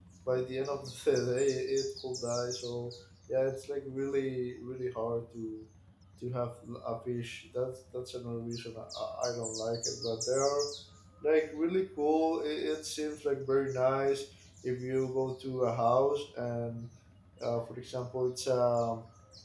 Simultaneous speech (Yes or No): No